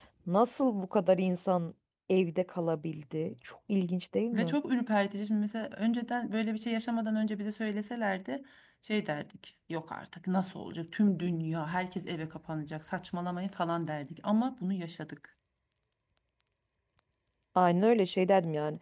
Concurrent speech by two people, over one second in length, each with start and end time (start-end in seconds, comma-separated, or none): none